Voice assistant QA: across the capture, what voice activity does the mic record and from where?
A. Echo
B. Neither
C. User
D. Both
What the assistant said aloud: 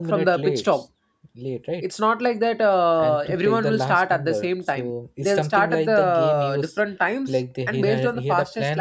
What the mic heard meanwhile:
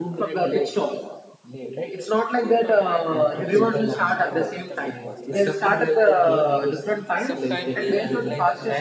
D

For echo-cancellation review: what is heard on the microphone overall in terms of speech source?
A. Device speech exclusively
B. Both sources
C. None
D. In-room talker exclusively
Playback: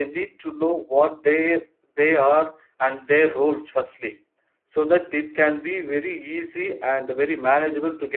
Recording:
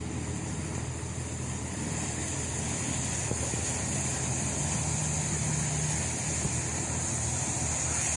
C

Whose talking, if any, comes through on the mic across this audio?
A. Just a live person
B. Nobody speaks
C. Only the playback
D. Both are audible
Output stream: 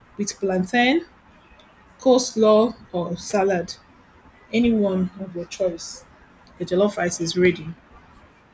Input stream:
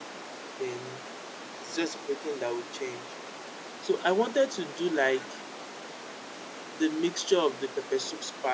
A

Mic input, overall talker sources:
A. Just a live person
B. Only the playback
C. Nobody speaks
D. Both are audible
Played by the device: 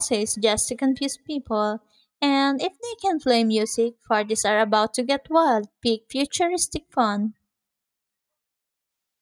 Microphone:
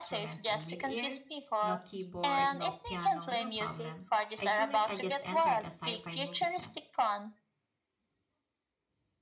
D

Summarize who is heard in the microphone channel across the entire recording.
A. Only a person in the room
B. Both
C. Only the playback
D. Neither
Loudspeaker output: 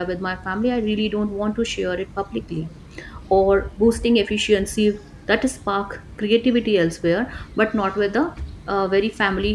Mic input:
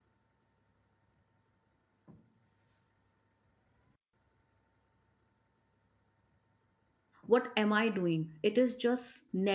A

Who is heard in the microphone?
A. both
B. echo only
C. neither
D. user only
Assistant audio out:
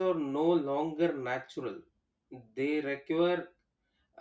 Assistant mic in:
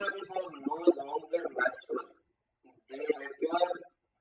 B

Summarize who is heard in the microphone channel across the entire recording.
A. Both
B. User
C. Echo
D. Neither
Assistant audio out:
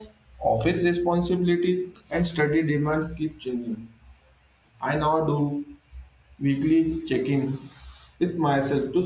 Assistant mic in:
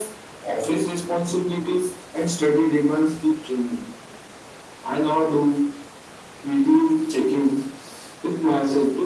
C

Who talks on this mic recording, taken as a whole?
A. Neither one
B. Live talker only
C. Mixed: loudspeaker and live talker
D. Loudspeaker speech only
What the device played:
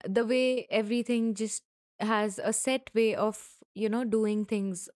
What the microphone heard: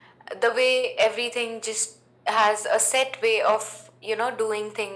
D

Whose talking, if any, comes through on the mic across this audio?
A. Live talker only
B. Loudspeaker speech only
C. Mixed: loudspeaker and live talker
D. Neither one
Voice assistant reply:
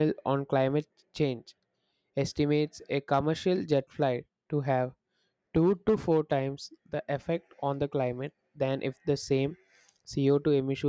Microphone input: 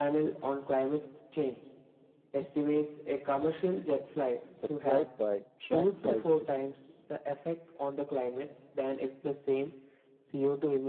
C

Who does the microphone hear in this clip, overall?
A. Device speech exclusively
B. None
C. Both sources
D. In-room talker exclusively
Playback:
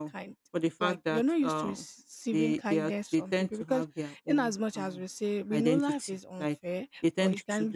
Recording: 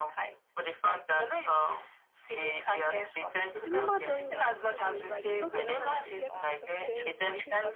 C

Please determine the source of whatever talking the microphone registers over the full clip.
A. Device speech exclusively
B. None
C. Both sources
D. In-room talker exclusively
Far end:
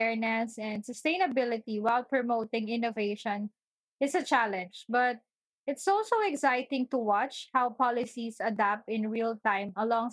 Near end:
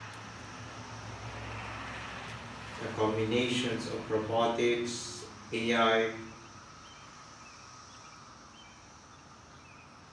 D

